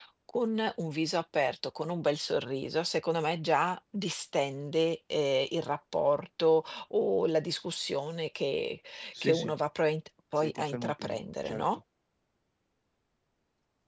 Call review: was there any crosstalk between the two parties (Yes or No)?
Yes